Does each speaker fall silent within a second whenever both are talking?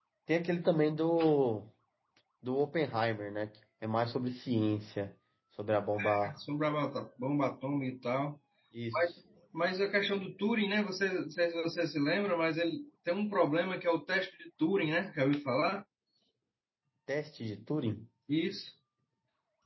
Yes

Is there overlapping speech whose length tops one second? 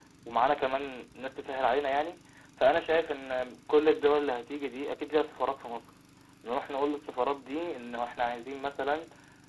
No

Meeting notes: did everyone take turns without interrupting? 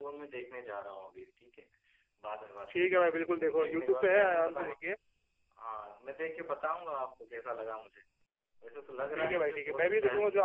No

